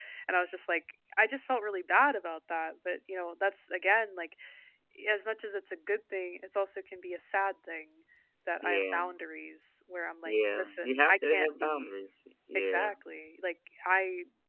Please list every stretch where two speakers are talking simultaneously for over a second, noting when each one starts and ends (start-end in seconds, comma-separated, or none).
10.2-11.9